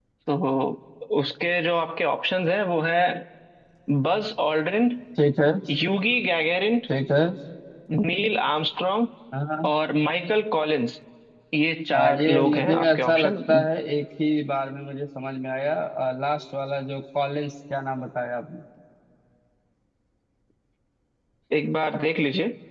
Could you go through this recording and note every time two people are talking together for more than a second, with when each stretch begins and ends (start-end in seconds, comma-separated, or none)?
11.9-13.4